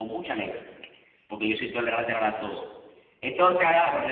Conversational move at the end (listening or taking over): taking over